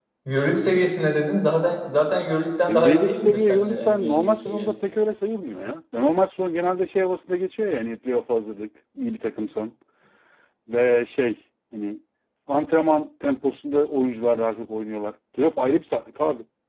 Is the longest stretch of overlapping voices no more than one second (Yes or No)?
No